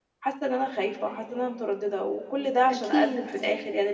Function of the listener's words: listening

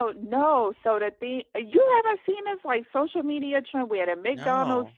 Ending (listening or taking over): listening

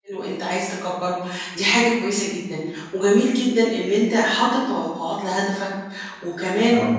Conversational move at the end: listening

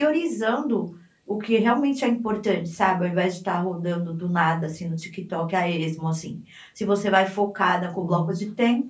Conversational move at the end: listening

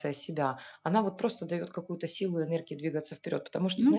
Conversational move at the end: listening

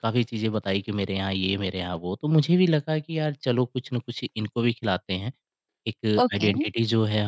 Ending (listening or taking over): listening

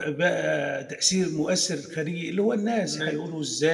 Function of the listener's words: listening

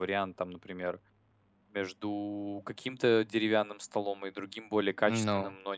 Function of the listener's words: listening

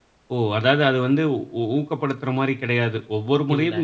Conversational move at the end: listening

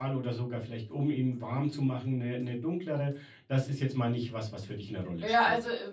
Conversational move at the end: taking over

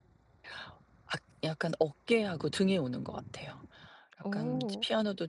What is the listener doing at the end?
listening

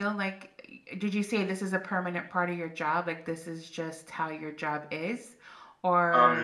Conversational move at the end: taking over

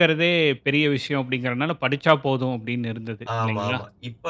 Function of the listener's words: taking over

